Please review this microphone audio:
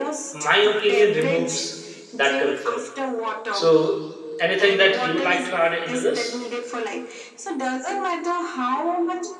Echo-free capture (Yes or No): No